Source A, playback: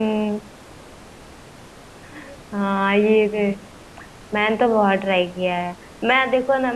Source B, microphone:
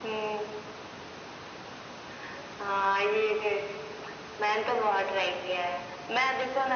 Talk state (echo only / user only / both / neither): echo only